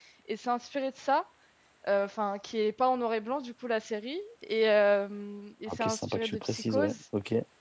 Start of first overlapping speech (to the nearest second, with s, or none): 6 s